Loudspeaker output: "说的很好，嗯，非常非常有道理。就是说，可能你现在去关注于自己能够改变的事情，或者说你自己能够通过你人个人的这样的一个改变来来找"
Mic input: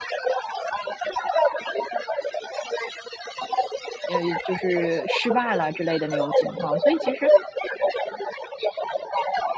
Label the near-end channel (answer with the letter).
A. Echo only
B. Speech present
B